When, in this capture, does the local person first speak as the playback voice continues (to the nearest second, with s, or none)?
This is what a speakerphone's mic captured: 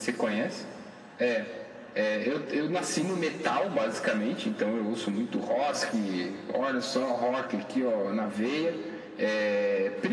none